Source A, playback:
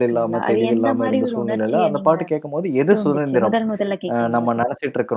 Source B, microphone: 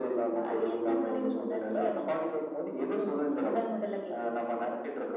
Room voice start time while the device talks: none

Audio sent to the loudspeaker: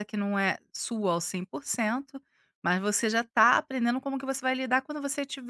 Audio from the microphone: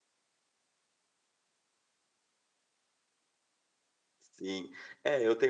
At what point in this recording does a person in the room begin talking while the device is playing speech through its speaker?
4.2 s

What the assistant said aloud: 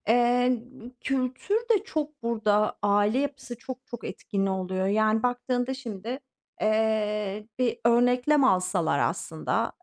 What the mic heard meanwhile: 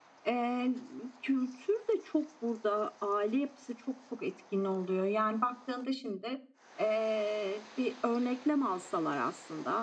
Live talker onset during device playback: none

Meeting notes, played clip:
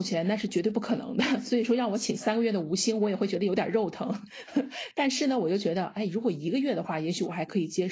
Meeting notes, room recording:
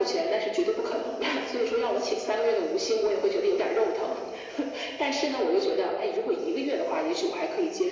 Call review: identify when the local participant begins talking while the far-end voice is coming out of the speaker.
none

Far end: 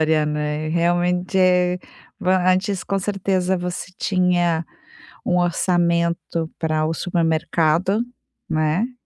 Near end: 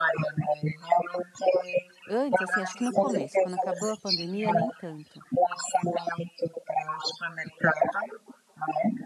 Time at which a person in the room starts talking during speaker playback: 2.1 s

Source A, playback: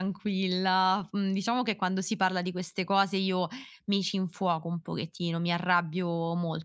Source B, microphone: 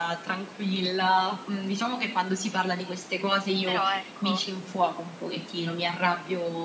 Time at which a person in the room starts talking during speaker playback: 3.6 s

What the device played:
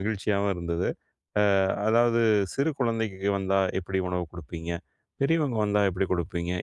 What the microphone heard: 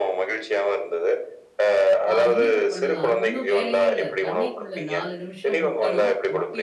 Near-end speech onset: 2.1 s

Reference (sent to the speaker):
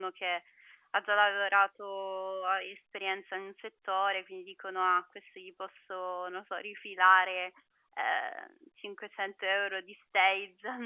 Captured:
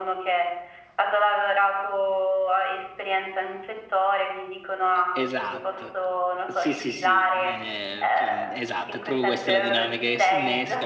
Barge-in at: 4.9 s

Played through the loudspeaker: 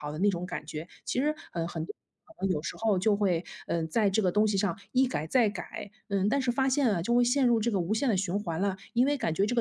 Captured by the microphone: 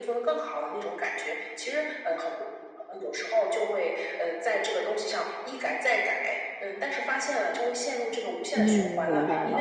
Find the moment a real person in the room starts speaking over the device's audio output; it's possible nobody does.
8.5 s

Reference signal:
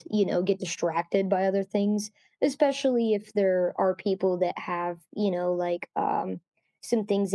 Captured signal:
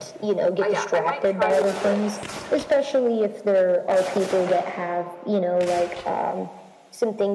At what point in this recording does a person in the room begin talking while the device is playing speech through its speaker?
0.6 s

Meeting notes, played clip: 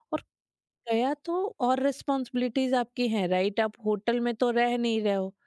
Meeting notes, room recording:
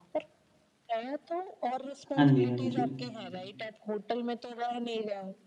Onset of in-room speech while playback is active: 2.2 s

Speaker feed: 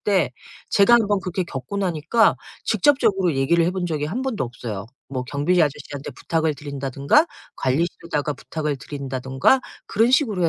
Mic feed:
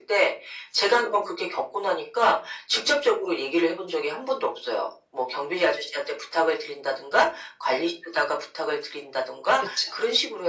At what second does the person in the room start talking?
9.6 s

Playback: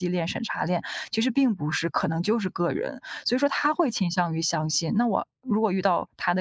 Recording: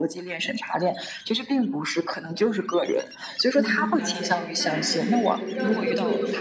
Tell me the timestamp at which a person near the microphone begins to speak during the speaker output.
3.5 s

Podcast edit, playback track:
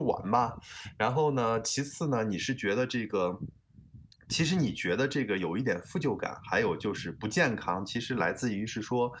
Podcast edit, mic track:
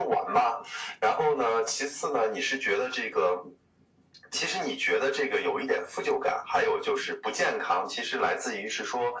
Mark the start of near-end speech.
none

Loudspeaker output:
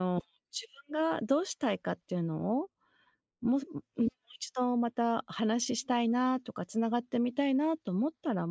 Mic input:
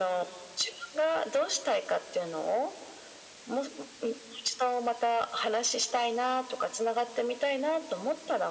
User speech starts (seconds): none

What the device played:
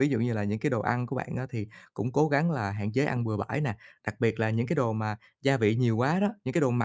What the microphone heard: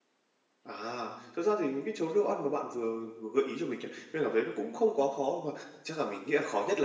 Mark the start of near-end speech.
0.6 s

